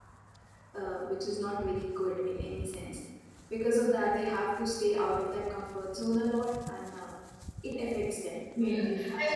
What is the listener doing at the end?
taking over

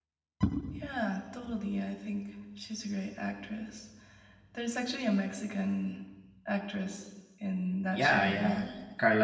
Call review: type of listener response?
taking over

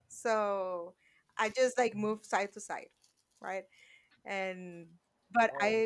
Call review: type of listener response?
listening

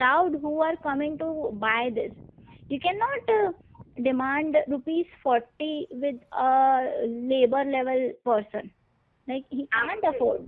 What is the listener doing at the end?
listening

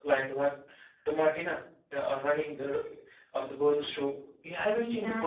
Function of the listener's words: taking over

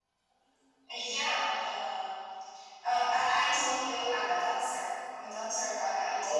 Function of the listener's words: listening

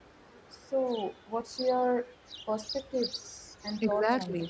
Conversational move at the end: taking over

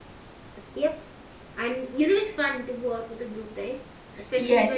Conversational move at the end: taking over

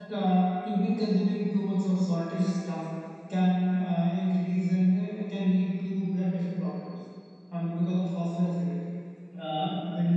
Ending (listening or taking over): taking over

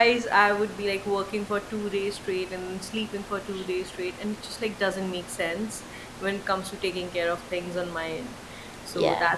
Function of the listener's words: listening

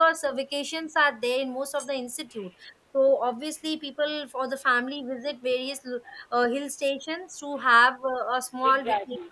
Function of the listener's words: taking over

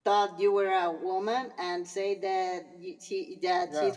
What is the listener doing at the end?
listening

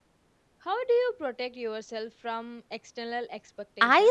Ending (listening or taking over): taking over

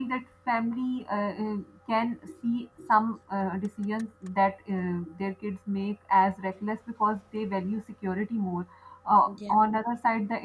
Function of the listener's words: listening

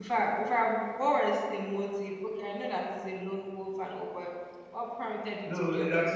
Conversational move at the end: taking over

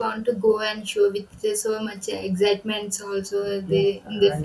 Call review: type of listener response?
taking over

